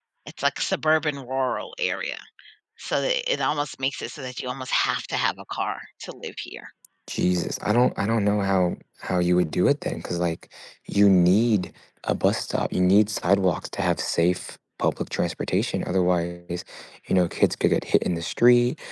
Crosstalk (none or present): none